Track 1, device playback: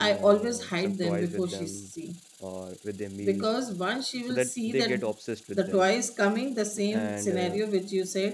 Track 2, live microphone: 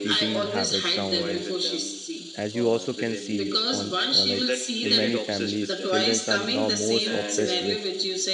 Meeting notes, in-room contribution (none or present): present